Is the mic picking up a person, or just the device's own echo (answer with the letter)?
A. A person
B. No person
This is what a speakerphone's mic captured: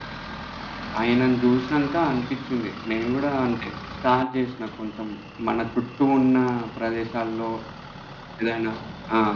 B